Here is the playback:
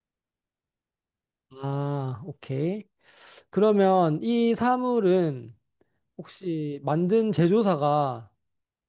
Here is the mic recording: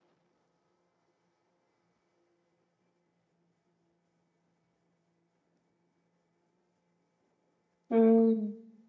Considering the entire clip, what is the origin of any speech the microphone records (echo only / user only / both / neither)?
user only